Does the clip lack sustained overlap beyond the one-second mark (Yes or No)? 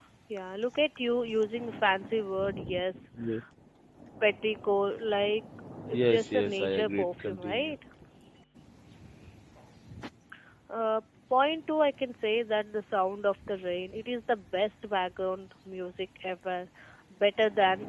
No